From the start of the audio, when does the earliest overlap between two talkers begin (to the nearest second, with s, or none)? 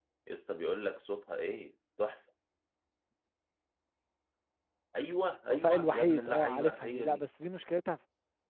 5 s